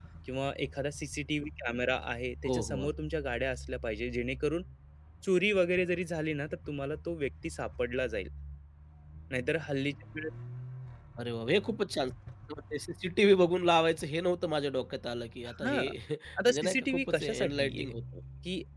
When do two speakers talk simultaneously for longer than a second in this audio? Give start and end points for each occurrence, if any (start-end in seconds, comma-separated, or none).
16.5-17.9